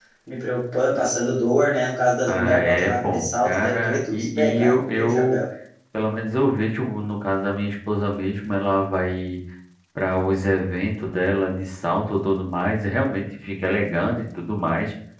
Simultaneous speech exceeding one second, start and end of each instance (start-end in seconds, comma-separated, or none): 2.3-5.4